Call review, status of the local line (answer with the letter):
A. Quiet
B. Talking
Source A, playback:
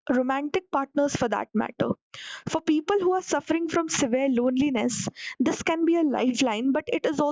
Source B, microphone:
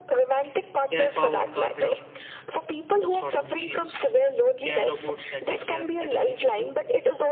B